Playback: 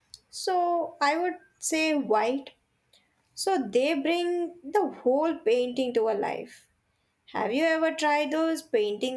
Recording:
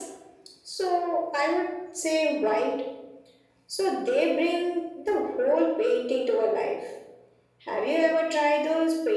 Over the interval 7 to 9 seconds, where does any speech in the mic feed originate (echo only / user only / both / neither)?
echo only